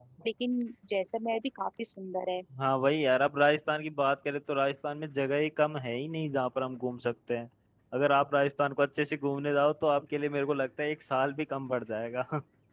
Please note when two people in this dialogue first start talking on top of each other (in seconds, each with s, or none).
none